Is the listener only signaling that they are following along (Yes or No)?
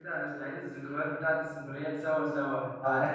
Yes